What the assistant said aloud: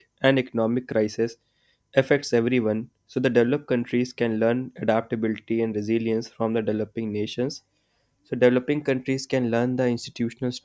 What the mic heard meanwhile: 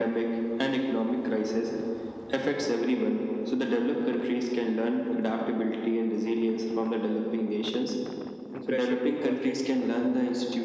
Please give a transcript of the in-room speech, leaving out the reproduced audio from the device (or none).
and pressure to constantly perform